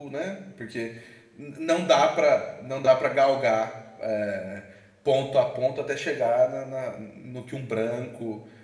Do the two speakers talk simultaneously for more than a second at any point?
No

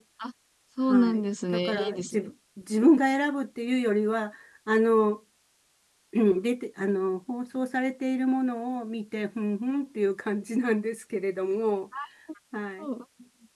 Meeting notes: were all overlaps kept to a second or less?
No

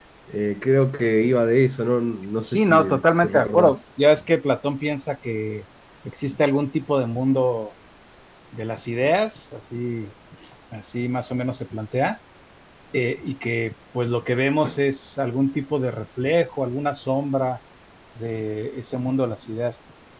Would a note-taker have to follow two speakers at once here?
Yes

